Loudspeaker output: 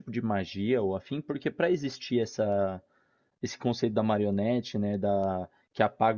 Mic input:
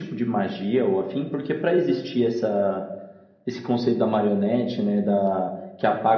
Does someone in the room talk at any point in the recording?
No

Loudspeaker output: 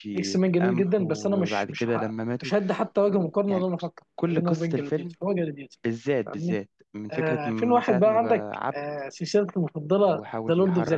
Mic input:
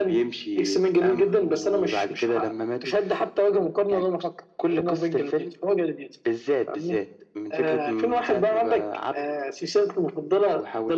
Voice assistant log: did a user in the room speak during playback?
No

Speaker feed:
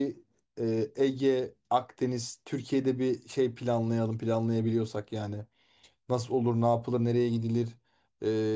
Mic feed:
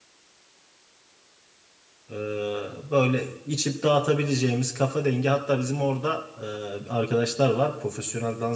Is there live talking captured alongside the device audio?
Yes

